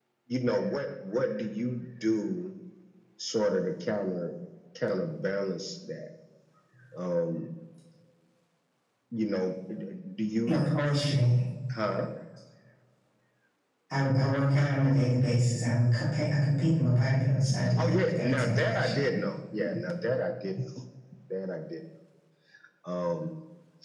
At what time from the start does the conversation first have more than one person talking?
17.5 s

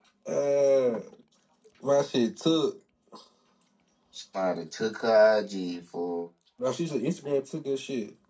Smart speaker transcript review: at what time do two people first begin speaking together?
none

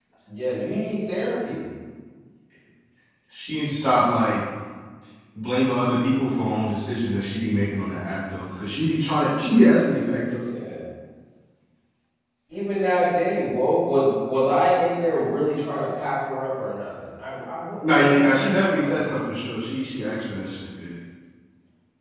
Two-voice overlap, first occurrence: 17.8 s

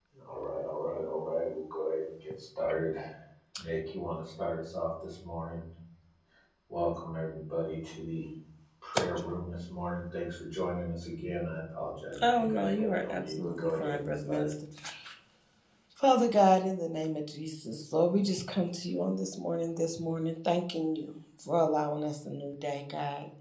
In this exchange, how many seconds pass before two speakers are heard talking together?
12.1 s

